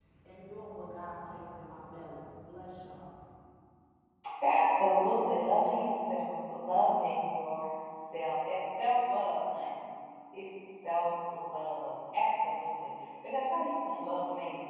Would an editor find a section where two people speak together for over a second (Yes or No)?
No